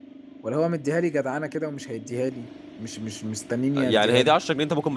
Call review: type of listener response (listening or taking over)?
taking over